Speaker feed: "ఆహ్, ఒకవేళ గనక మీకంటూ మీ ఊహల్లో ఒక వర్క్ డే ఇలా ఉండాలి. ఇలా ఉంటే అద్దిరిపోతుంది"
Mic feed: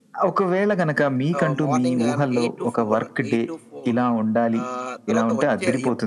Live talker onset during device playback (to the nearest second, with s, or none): 1 s